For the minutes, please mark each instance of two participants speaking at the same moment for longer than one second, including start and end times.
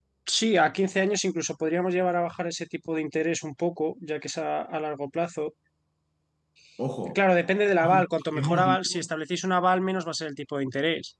7.9-9.1

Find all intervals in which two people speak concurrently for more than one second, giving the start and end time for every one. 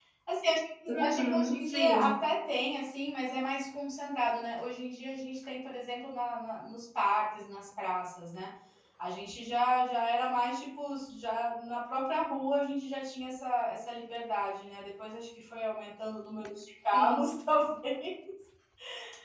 0.9-2.2

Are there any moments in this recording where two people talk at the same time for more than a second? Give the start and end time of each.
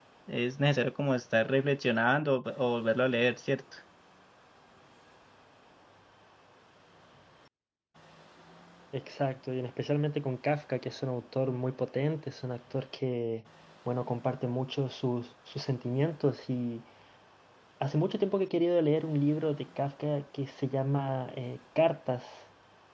none

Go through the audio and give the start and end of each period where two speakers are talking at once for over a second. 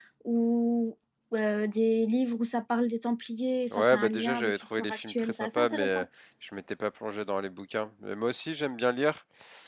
3.7-6.0

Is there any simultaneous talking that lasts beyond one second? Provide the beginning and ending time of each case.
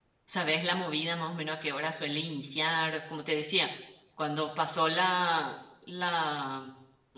none

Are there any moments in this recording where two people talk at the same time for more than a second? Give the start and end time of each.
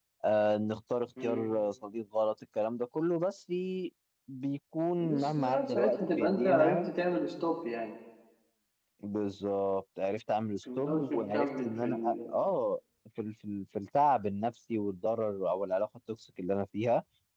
5.0-6.9, 10.8-12.3

